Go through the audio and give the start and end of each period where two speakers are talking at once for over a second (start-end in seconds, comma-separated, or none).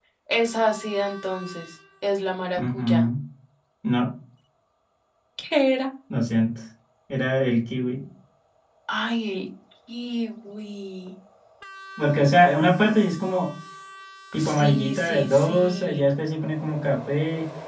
14.4-16.0